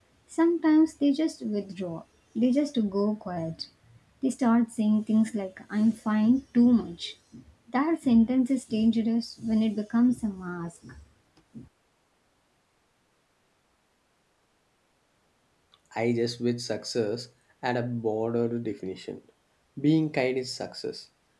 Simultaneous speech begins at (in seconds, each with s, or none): none